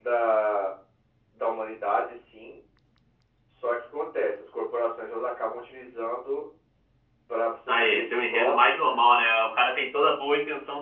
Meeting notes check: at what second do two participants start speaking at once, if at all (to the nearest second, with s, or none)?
8 s